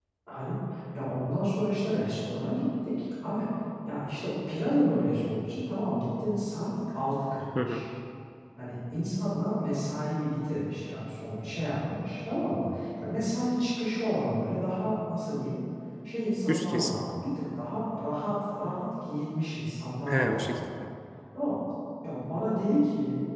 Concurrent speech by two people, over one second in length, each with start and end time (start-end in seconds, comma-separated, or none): none